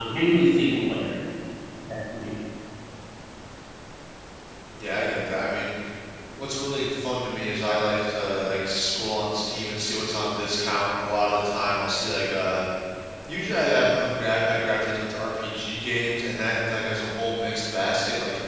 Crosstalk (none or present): none